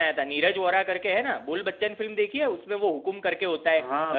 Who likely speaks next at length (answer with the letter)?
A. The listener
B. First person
A